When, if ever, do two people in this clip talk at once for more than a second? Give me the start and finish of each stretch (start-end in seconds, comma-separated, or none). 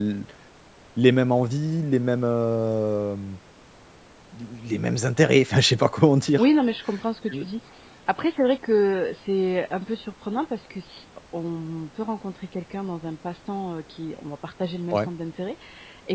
none